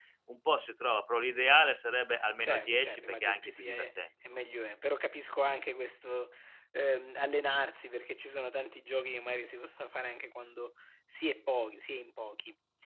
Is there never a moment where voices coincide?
No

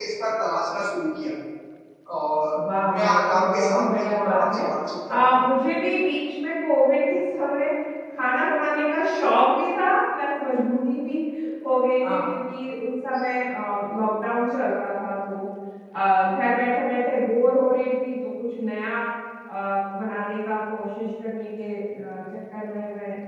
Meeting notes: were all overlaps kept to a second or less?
No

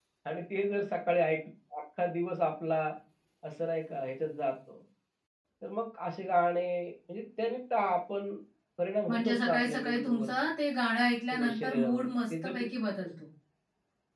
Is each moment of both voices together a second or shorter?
No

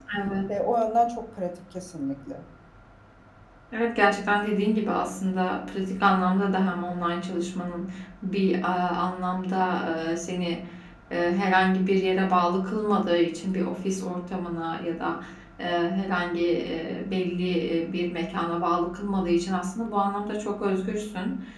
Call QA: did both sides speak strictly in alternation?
Yes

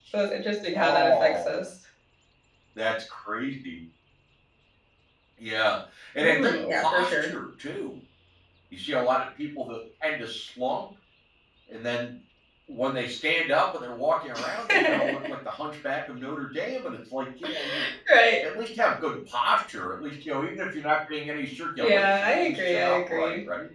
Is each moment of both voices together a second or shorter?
No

